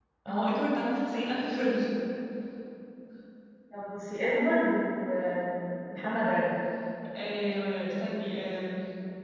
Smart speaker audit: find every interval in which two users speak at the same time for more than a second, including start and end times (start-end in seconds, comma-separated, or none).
none